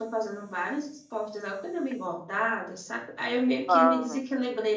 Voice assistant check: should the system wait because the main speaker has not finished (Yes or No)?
Yes